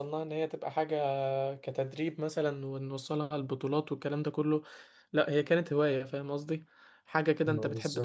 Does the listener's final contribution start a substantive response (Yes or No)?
No